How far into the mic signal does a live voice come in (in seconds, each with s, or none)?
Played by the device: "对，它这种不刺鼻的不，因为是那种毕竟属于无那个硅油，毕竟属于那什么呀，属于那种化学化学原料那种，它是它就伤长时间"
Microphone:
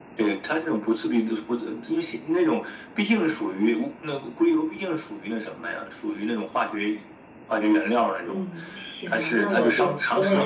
8.2 s